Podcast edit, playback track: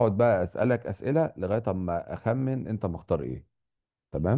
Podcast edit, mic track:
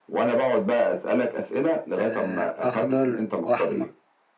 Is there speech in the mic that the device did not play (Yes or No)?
Yes